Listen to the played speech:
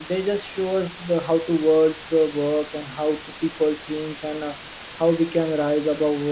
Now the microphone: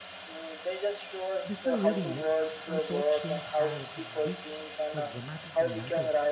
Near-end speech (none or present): present